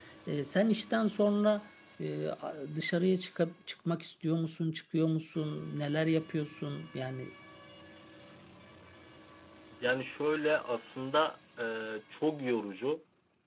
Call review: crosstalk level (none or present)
none